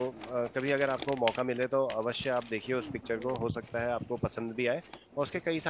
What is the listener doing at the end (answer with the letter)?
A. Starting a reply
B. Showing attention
B